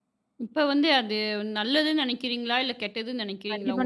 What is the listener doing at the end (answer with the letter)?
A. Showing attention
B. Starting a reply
B